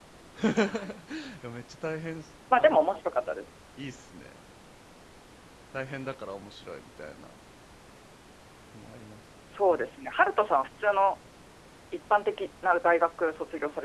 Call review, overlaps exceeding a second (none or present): none